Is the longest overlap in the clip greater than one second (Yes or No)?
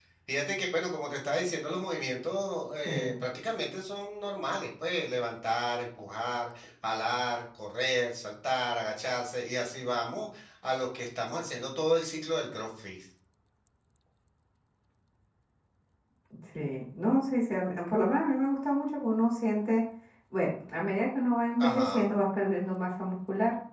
No